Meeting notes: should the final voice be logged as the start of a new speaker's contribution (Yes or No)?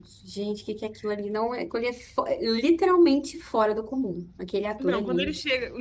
Yes